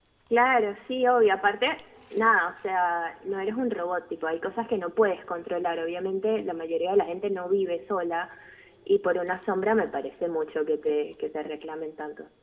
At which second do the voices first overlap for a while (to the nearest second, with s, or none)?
none